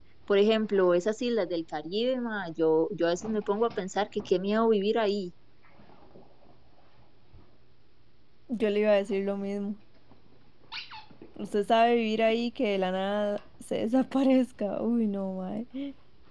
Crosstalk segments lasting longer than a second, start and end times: none

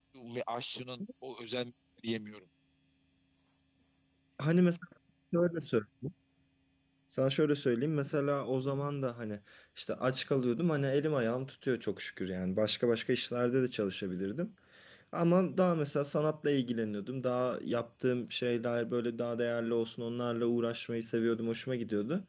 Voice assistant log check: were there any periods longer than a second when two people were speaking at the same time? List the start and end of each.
none

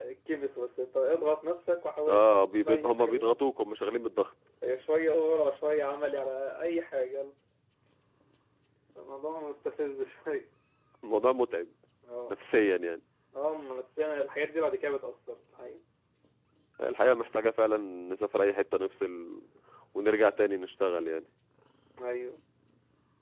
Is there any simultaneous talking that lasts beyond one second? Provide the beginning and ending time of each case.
2.1-3.4

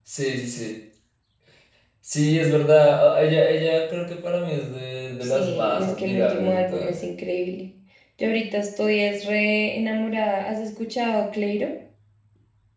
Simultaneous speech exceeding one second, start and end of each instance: 5.2-7.0

